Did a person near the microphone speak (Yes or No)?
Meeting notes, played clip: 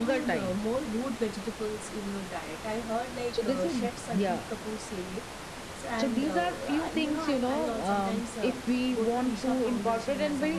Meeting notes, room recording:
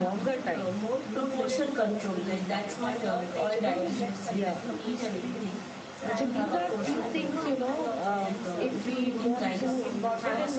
Yes